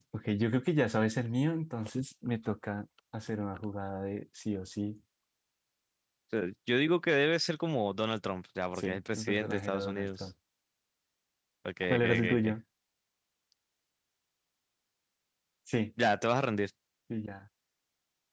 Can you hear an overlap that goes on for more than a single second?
Yes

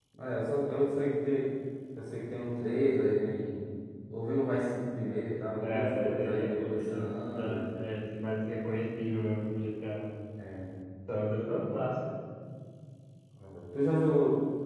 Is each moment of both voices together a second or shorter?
No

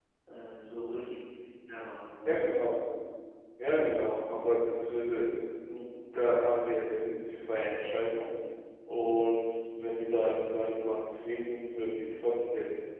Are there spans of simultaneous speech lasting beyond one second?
No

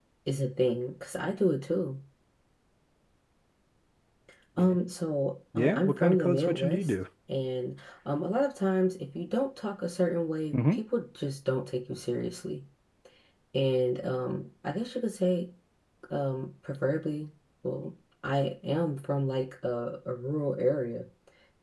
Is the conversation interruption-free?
No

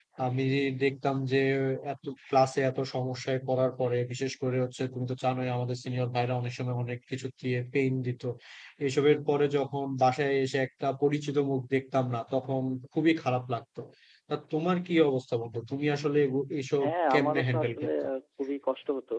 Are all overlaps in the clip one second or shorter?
No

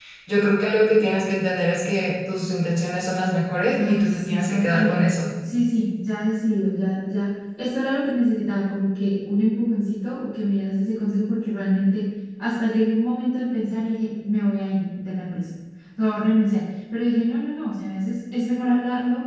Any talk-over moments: Yes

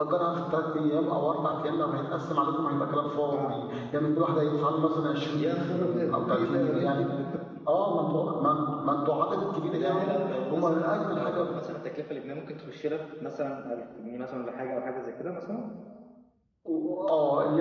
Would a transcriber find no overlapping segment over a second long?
No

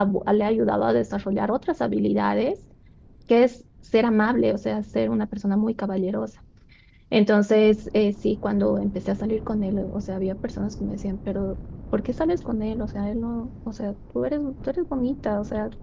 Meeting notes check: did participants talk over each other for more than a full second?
No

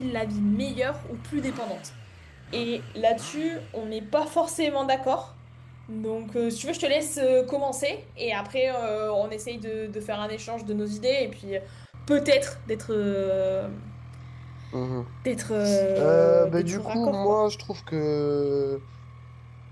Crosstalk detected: Yes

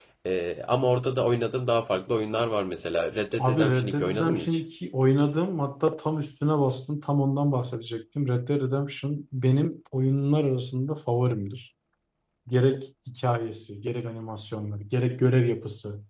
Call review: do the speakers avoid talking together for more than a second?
No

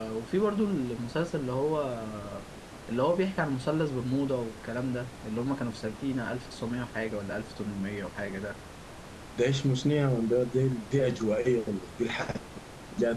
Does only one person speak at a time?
Yes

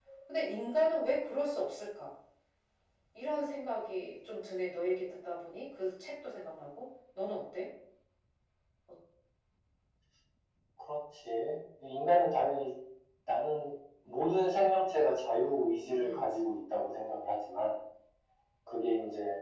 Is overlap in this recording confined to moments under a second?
Yes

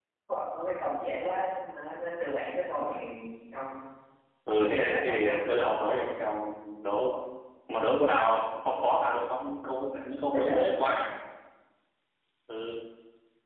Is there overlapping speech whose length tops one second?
Yes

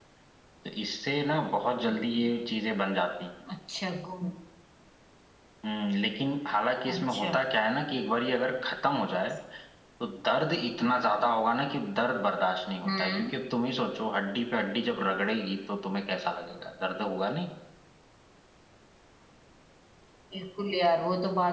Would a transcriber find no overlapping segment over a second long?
Yes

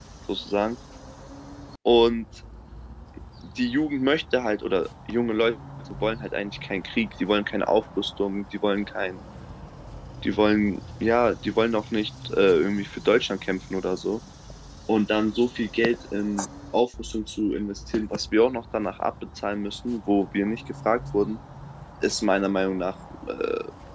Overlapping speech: No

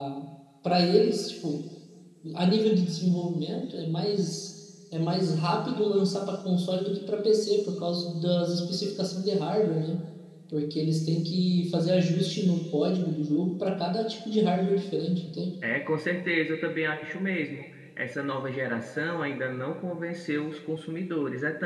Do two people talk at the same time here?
No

